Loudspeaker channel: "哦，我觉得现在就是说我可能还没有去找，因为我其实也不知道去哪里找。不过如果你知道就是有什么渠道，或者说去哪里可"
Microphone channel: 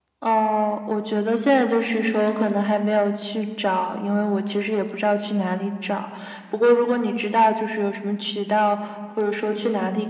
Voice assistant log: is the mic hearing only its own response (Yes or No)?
Yes